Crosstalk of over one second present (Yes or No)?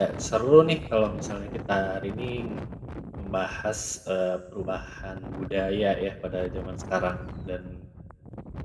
No